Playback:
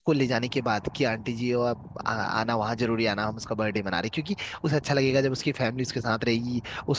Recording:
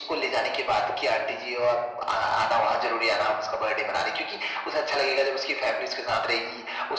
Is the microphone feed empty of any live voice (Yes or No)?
Yes